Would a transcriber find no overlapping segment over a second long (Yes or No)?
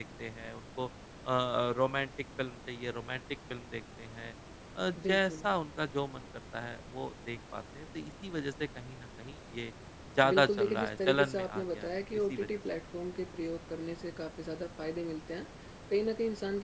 No